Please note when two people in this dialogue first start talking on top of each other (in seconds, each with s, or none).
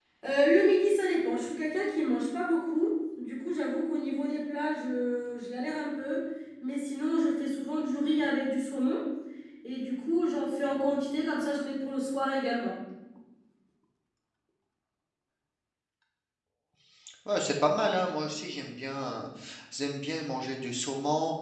none